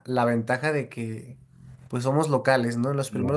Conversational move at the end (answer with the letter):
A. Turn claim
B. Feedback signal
B